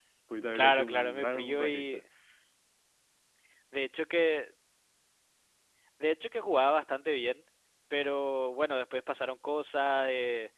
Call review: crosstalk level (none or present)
present